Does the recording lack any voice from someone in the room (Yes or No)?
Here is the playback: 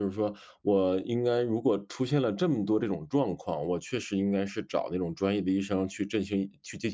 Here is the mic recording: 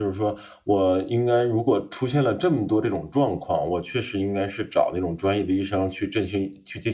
Yes